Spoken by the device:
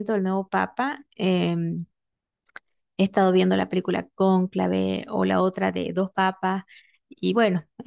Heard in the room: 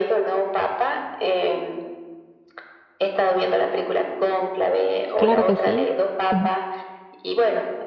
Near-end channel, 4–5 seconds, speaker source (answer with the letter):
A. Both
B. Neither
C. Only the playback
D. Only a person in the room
C